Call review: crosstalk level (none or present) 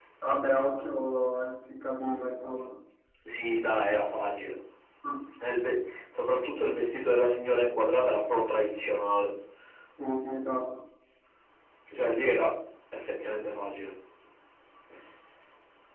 none